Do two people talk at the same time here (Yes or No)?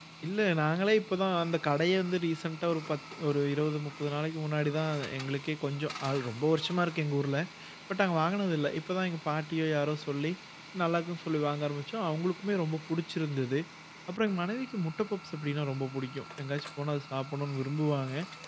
No